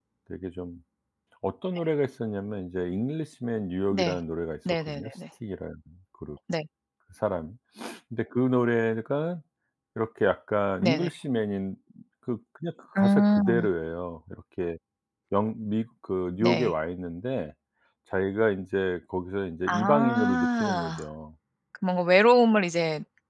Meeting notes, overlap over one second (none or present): present